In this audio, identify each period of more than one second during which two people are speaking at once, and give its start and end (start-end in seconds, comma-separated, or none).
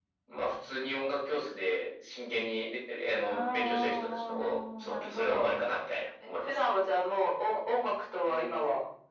3.3-5.5